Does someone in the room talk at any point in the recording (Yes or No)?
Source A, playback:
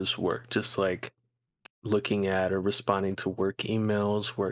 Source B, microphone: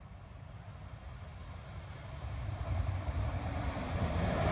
No